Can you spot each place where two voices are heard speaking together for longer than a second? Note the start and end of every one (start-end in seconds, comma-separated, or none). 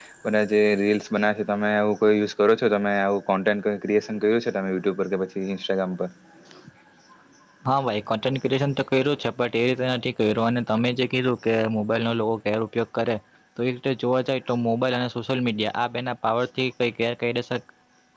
none